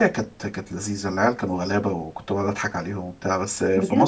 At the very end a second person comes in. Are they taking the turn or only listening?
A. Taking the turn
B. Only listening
B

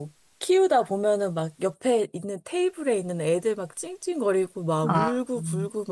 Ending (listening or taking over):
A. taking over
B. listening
B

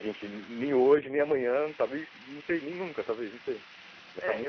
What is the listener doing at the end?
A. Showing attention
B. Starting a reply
B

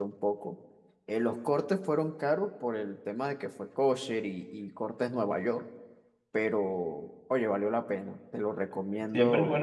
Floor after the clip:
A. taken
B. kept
A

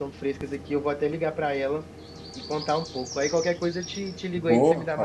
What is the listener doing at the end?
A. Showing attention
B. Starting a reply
B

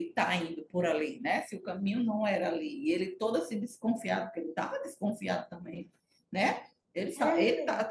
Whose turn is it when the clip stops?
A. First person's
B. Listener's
A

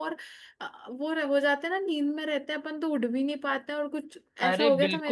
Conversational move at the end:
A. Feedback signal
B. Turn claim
B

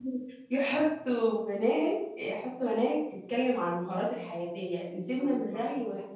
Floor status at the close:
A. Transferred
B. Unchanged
B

